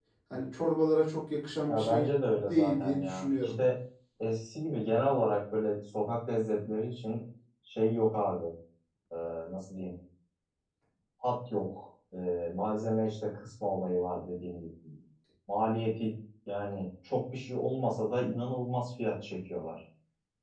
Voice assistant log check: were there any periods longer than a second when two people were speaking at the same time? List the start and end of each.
1.7-3.5

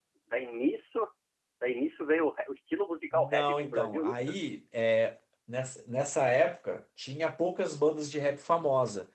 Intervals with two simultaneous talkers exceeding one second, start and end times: 3.1-4.3

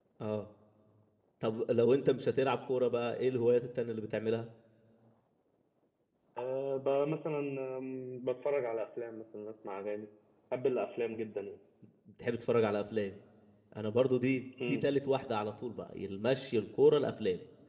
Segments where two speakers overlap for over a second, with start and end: none

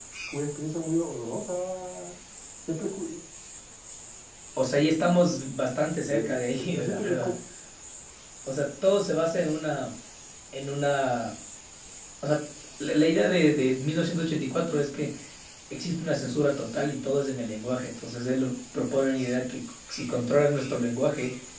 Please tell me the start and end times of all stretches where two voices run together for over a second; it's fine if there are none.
6.0-7.3

